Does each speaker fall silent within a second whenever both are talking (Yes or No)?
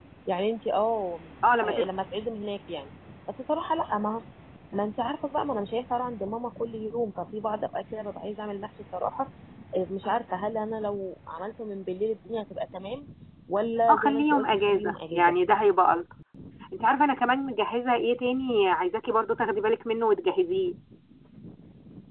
No